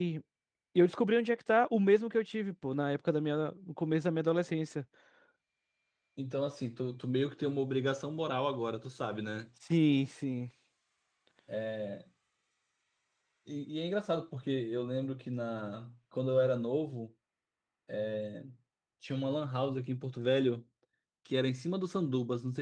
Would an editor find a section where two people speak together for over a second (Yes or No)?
No